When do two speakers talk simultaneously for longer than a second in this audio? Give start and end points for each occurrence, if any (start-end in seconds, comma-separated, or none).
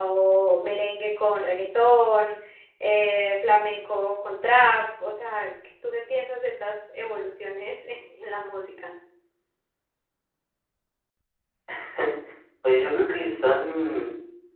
none